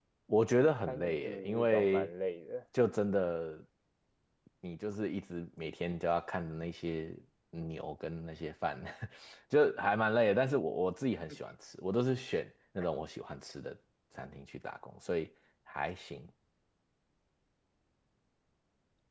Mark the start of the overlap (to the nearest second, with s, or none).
1 s